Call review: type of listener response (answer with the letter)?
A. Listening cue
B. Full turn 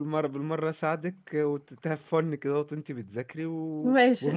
A